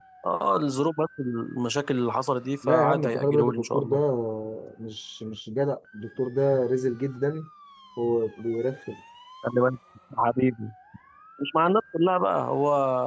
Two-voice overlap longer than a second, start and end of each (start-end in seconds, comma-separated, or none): 2.7-4.0